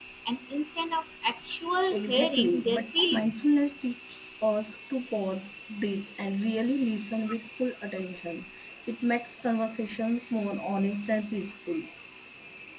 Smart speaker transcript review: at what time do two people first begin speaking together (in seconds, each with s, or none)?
1.9 s